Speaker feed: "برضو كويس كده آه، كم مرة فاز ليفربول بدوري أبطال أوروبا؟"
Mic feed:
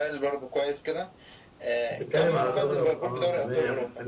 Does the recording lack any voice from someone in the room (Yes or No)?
No